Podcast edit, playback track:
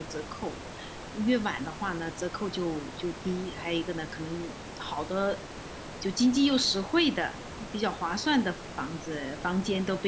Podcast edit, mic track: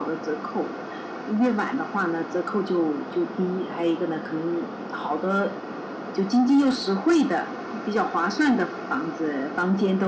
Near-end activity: none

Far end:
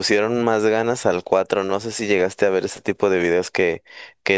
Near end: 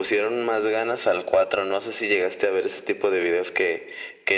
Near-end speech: none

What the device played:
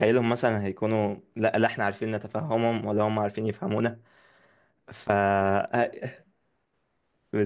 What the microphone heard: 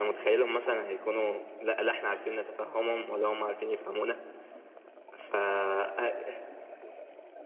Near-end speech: none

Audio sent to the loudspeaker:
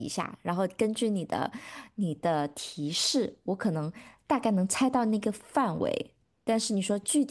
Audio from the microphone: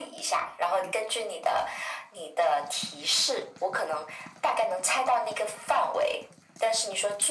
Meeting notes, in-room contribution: none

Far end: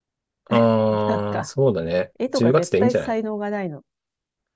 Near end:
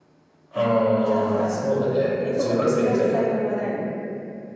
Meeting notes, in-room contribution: none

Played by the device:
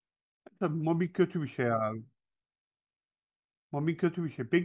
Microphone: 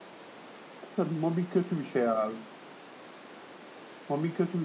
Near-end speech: none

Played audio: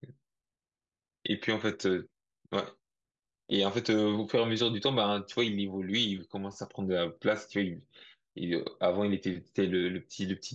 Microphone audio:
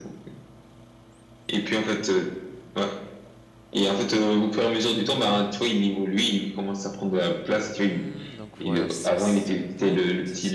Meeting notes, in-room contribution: present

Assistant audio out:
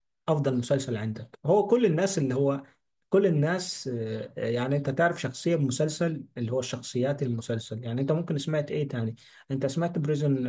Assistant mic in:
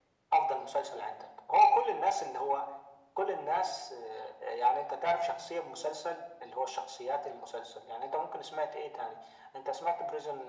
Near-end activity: none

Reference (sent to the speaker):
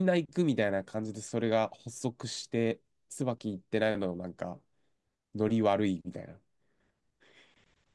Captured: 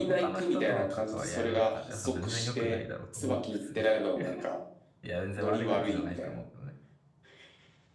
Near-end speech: present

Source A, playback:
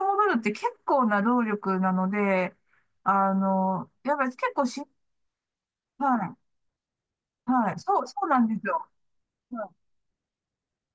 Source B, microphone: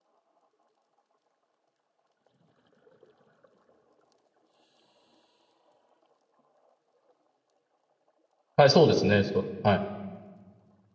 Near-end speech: present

